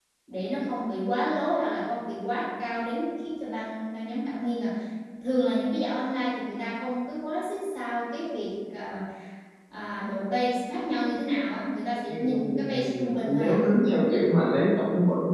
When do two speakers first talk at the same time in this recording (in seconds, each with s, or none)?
12.1 s